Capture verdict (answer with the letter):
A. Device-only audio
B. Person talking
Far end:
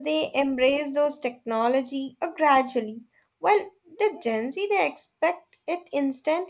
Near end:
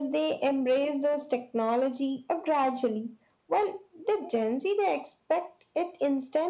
A